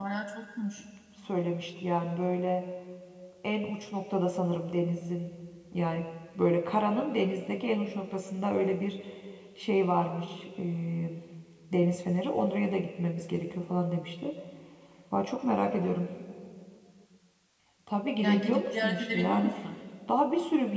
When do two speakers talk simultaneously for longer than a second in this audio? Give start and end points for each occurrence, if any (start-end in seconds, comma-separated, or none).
18.2-19.5